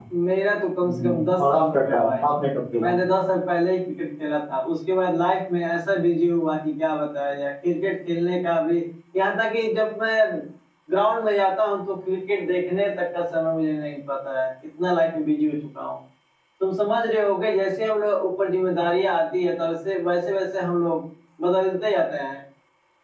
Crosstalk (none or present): present